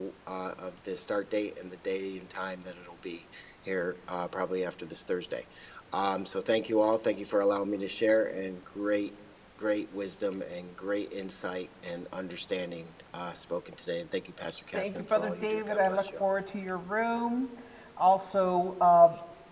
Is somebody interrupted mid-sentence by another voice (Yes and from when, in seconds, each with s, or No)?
Yes, from 14.7 s